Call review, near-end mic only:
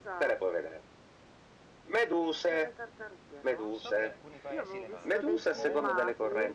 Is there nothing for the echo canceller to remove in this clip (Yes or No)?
No